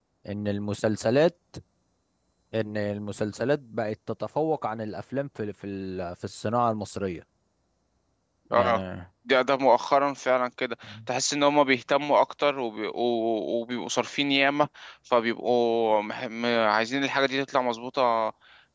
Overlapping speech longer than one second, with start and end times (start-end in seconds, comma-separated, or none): none